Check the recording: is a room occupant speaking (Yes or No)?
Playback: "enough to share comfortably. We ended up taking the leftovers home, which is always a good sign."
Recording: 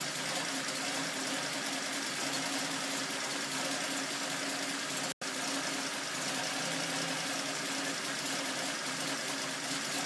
No